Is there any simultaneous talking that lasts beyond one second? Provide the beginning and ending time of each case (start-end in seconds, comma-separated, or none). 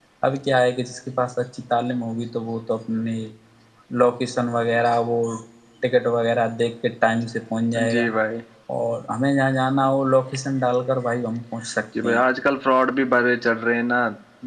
none